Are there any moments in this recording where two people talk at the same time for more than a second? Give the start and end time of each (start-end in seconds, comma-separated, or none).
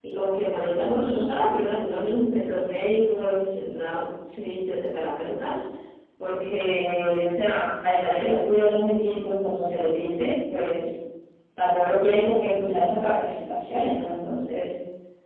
none